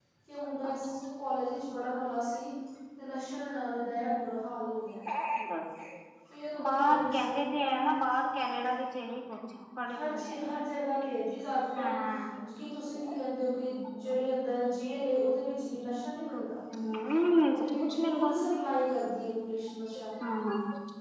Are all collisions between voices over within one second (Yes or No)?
No